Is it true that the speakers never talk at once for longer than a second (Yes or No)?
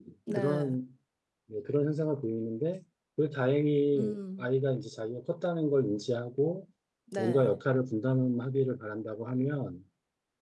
Yes